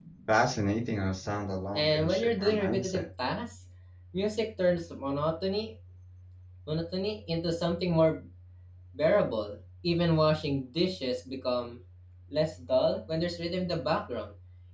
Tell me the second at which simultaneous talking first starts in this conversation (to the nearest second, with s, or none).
2 s